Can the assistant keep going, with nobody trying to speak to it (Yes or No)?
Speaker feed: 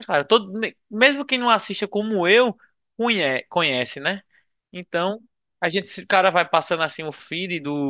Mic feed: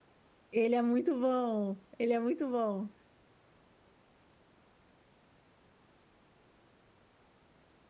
No